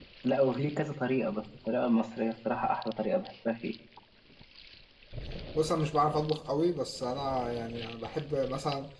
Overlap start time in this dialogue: none

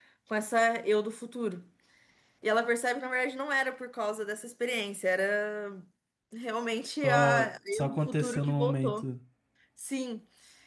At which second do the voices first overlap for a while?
7 s

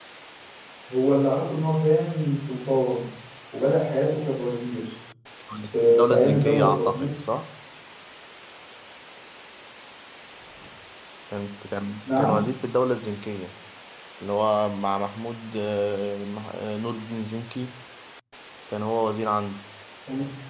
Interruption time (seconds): 6 s

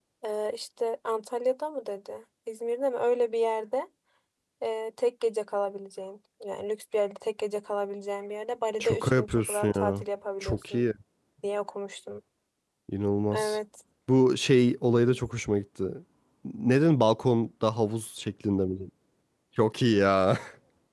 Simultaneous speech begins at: 9 s

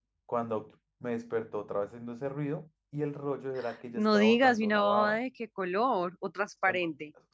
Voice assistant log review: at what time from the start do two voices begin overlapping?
4 s

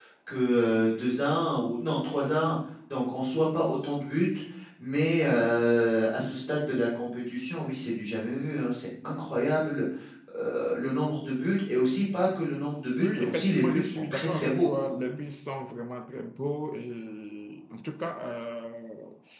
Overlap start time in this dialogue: 13 s

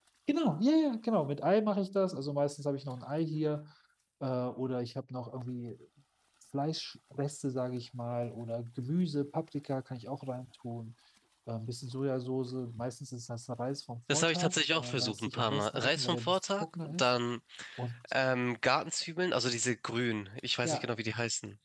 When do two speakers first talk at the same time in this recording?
14 s

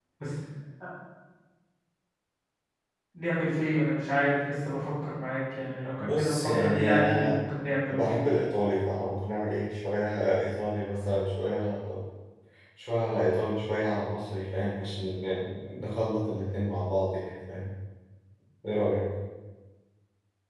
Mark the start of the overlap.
6 s

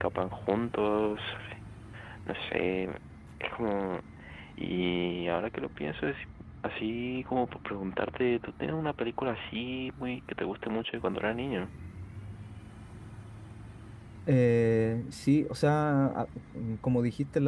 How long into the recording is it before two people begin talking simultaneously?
none

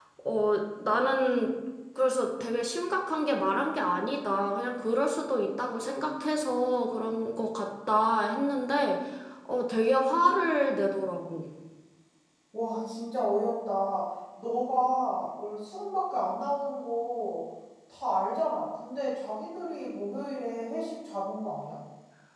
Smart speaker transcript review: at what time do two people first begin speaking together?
none

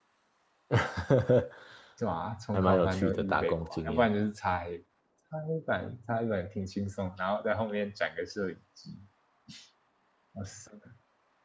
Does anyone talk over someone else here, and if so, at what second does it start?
3 s

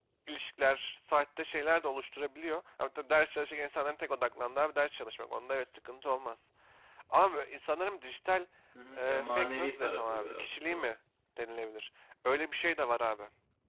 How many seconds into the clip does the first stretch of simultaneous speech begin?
9 s

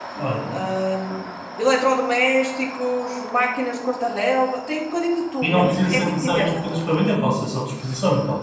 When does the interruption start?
5 s

